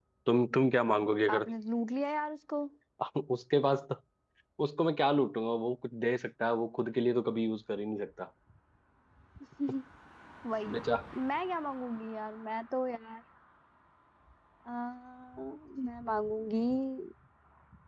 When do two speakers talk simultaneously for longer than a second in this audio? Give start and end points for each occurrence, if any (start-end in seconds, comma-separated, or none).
none